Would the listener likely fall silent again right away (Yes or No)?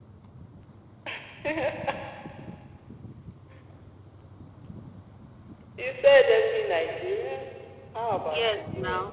No